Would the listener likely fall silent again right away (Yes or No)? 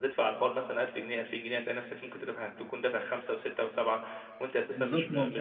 No